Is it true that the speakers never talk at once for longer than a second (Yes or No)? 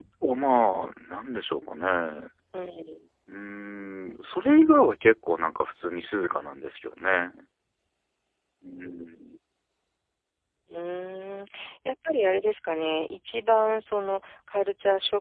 Yes